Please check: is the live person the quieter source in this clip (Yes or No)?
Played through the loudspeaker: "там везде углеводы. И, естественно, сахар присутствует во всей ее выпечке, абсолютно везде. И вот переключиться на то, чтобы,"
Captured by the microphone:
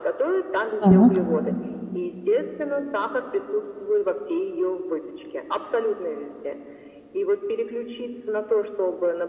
No